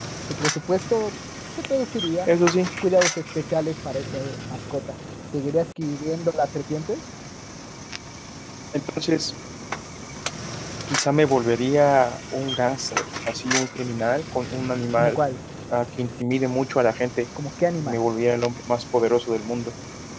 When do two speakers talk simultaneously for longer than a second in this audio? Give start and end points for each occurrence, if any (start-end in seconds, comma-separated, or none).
none